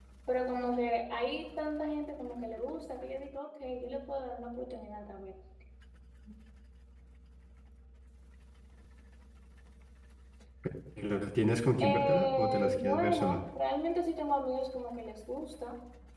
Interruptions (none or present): present